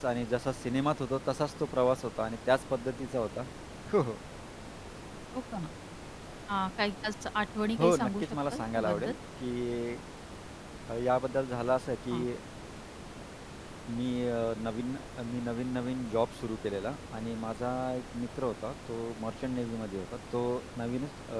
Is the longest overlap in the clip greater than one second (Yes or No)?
Yes